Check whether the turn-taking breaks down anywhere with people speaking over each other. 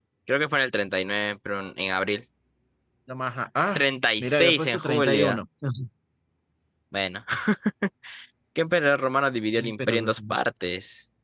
Yes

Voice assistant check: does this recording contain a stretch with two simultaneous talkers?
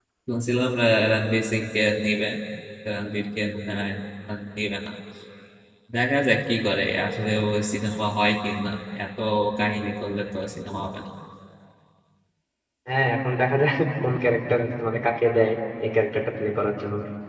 No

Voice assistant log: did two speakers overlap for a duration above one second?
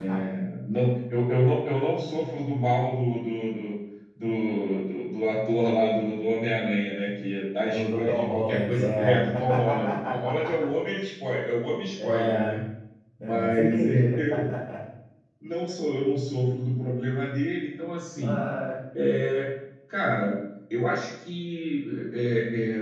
Yes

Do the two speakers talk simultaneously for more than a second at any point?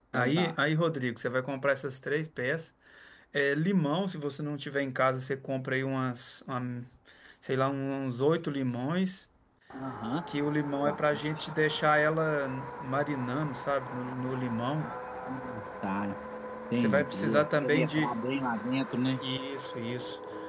Yes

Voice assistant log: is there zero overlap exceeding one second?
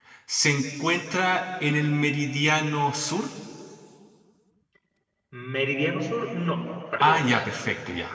Yes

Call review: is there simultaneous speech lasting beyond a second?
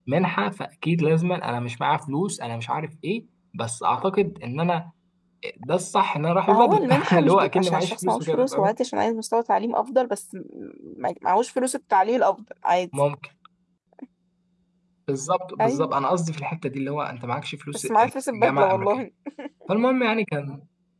Yes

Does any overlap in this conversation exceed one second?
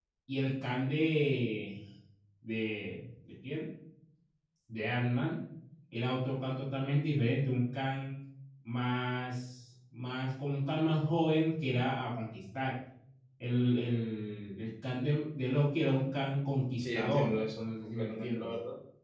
Yes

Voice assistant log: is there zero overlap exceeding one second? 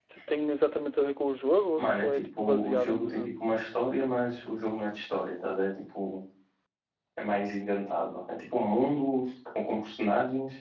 No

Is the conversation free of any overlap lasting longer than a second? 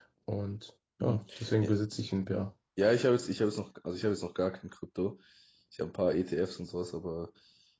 Yes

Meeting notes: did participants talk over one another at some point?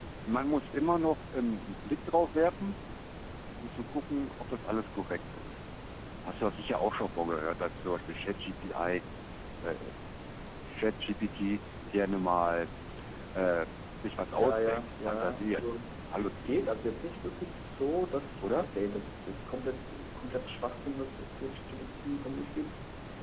Yes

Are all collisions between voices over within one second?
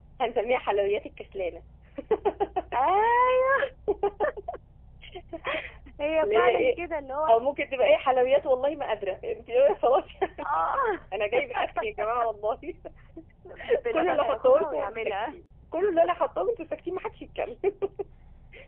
No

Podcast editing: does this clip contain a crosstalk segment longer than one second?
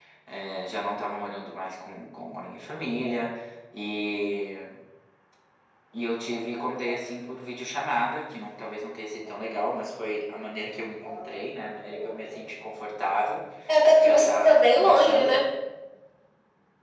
Yes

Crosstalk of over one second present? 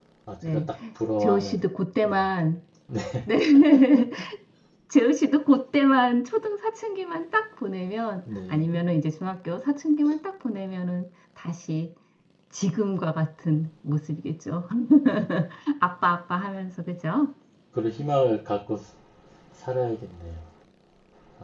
No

